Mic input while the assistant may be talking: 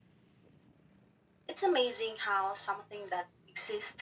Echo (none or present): none